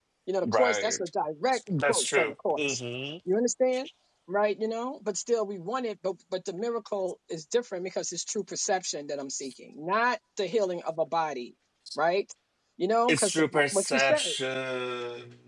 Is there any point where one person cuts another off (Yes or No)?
Yes